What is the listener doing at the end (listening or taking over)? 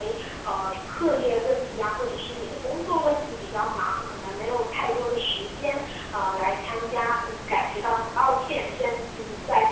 listening